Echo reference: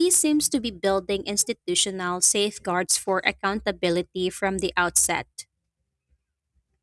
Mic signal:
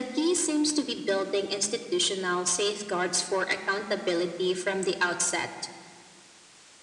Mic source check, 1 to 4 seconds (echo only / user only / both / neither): echo only